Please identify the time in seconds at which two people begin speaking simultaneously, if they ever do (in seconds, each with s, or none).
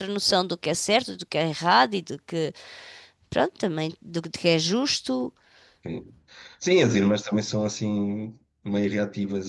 none